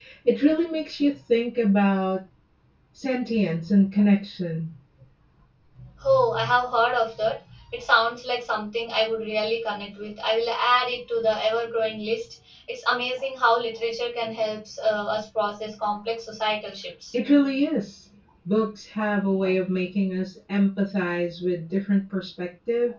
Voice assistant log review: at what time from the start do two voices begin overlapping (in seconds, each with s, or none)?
none